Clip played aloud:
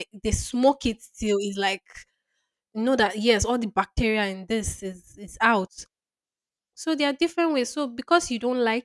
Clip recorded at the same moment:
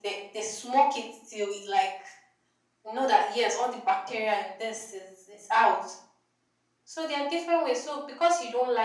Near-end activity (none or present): none